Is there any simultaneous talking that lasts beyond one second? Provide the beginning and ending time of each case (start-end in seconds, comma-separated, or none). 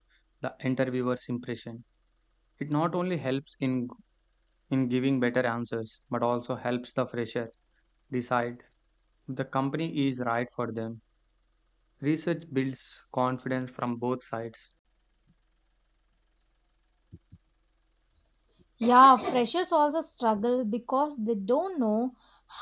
none